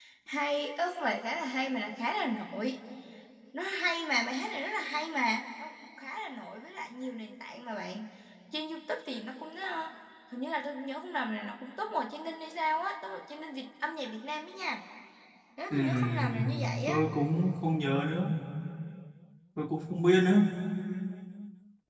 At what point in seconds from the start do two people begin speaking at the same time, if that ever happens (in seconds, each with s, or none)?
15.7 s